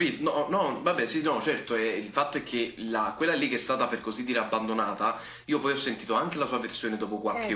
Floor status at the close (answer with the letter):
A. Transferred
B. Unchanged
B